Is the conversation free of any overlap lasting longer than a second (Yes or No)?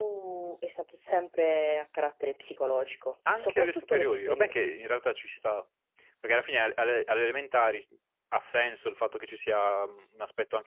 No